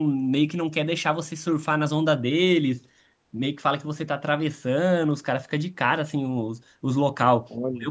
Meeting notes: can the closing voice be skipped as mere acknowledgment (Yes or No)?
Yes